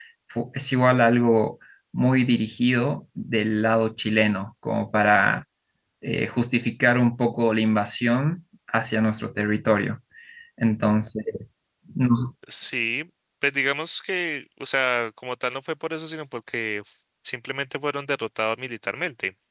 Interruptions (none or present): none